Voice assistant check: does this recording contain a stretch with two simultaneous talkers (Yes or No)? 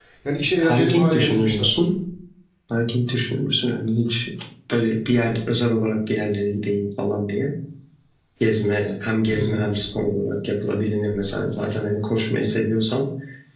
Yes